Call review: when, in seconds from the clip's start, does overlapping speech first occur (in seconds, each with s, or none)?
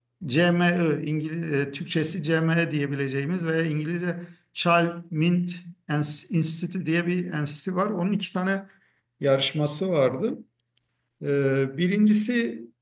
none